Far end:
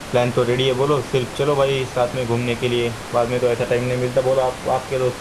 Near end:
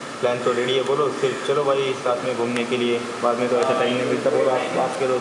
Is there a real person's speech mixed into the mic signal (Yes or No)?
Yes